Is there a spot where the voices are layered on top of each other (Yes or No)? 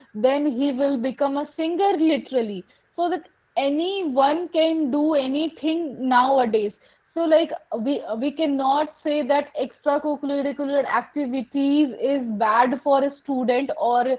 No